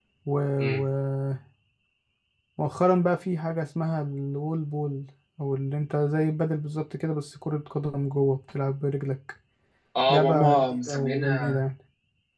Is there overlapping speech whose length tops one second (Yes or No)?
Yes